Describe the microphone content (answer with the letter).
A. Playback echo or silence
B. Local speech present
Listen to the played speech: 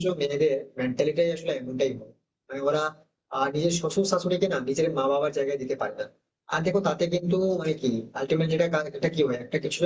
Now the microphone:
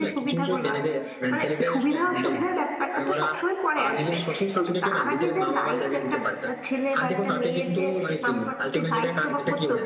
B